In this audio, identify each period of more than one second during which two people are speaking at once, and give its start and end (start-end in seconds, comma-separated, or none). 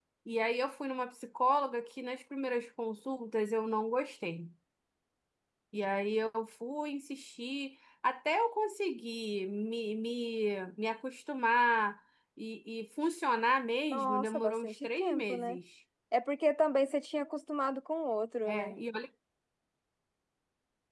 13.9-15.6